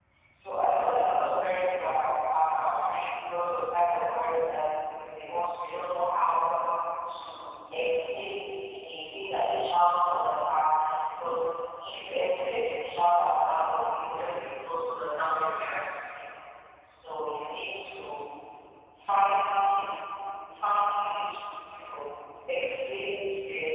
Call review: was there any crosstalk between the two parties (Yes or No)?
No